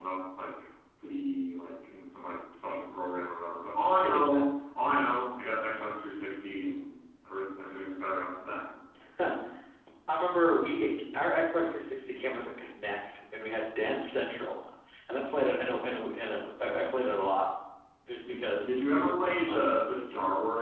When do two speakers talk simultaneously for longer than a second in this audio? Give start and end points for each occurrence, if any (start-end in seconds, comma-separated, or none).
18.3-19.6